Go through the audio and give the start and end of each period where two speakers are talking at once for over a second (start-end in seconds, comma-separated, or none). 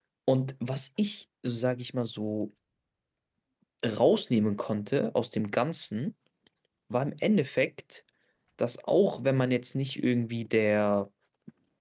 none